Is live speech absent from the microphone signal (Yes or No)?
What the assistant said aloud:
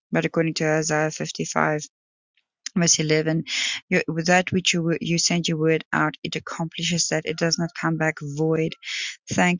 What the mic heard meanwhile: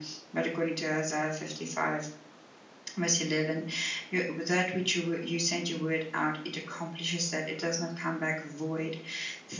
Yes